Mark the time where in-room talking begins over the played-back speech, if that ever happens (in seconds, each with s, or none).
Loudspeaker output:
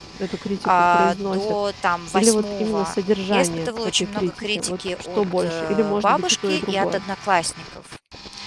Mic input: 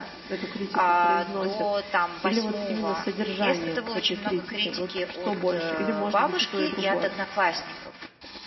none